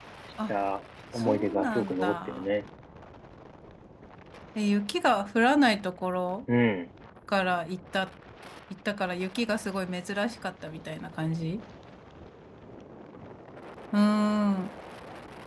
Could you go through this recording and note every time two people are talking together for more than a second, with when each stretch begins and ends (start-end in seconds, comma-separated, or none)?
1.1-2.5